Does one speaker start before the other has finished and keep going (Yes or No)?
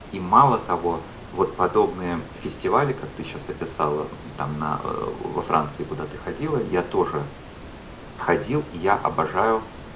No